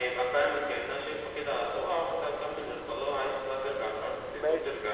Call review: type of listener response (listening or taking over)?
taking over